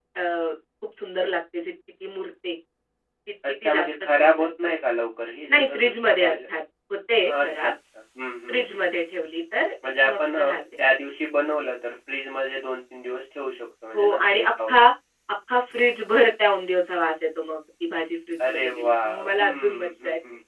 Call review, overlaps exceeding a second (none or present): present